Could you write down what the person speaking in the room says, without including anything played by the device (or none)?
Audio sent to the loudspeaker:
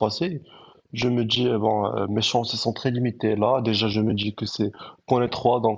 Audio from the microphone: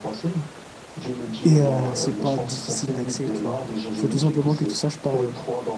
Et euh, c'est pas difficile d'accès, tu vois. Il faut tout simplement que tu saches parler